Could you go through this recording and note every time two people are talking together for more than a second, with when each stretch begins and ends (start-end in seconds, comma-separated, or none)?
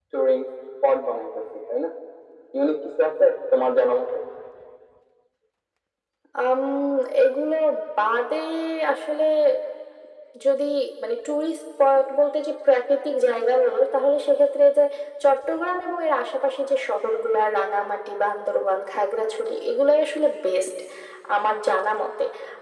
none